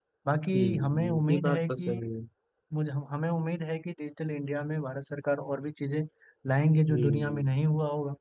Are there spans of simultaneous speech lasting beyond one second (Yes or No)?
Yes